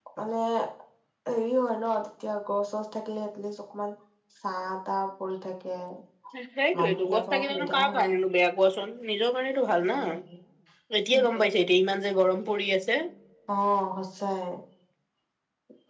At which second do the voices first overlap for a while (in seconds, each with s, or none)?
6.8 s